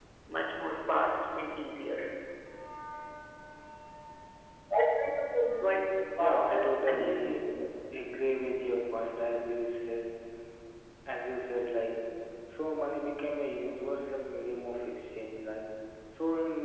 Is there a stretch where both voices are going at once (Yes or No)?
Yes